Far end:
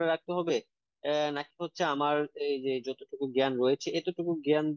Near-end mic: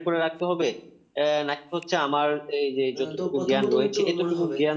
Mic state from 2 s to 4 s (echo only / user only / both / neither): both